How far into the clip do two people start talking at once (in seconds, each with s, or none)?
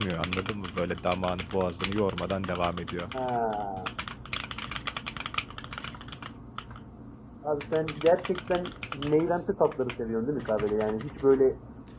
none